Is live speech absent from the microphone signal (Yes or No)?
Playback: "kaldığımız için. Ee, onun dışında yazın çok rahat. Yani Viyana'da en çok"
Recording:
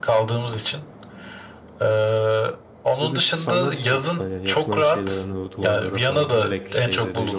No